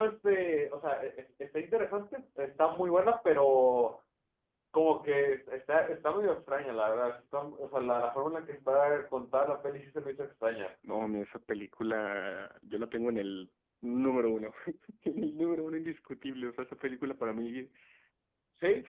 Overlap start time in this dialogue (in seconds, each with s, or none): none